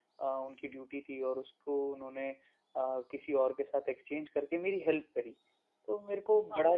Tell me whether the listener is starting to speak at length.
No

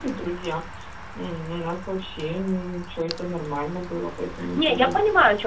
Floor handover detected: Yes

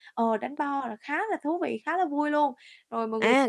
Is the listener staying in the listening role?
No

